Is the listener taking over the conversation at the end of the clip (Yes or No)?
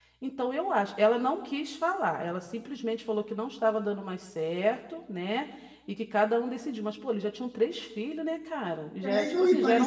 Yes